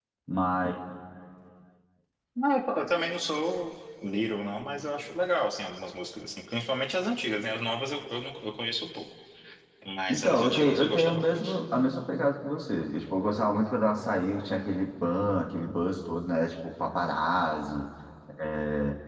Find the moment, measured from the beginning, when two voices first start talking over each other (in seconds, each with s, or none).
10.1 s